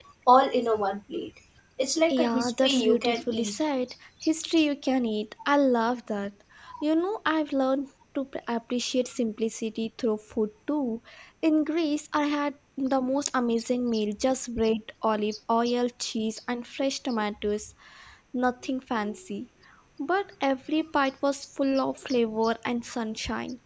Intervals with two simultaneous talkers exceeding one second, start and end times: 2.1-3.6

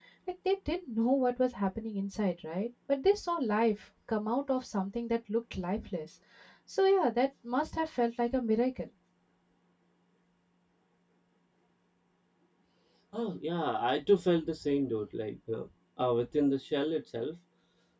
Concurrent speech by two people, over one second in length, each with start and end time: none

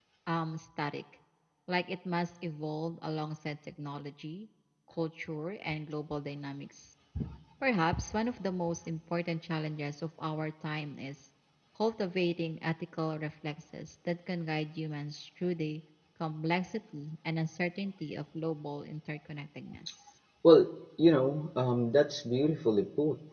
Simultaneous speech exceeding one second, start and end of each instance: none

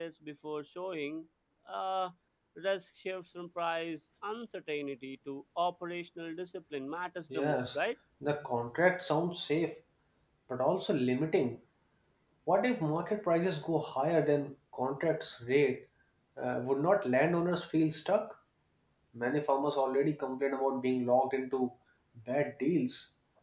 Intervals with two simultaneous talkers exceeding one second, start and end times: none

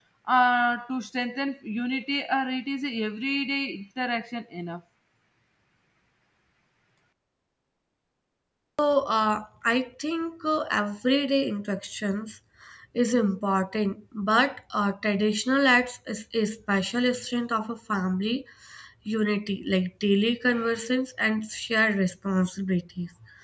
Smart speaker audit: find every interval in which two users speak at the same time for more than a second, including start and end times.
none

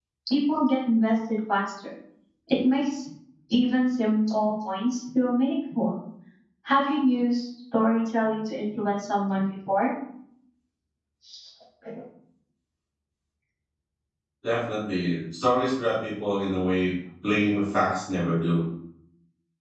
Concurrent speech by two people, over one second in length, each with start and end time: none

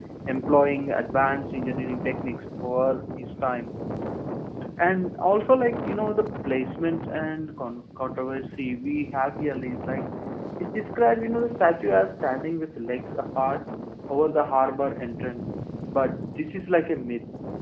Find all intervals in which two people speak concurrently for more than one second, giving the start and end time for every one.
none

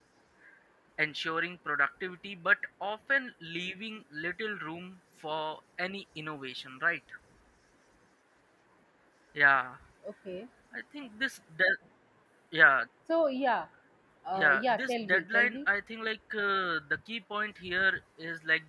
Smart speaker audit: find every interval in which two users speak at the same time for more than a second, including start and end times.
14.3-15.6

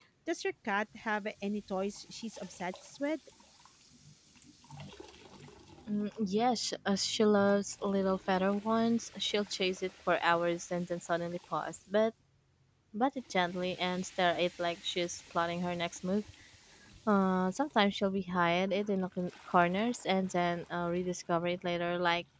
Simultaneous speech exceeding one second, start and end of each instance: none

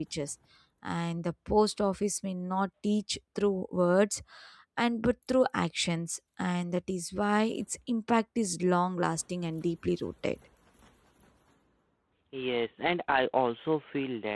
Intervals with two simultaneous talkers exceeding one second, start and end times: none

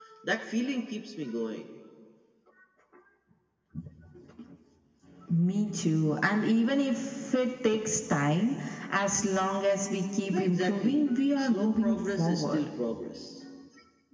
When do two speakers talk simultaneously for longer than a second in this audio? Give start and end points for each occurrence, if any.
10.3-12.7

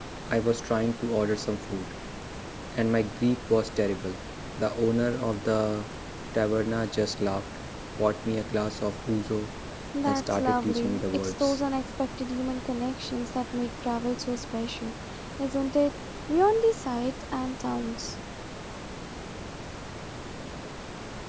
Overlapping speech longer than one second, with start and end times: 10.0-11.6

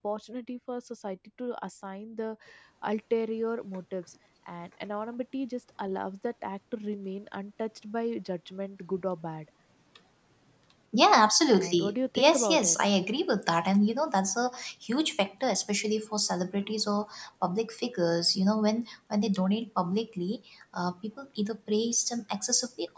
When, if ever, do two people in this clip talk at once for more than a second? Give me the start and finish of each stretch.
11.5-12.8

